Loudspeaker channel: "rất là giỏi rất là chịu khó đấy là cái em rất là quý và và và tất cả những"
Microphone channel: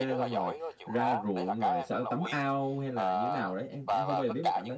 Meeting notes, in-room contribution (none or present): present